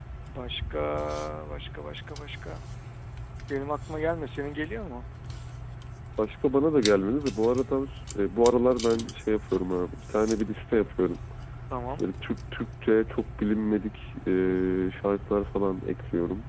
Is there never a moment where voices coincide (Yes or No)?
Yes